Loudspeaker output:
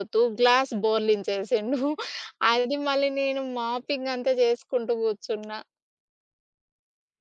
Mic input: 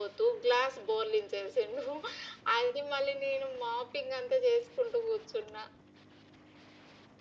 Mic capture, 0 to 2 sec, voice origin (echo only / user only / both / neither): echo only